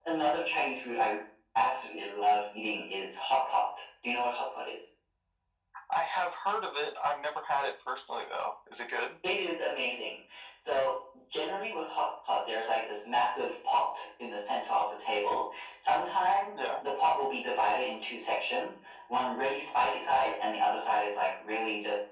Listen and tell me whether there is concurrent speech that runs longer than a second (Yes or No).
No